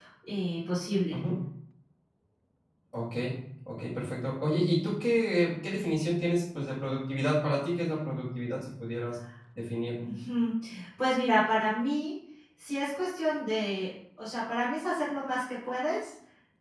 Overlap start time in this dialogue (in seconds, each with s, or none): none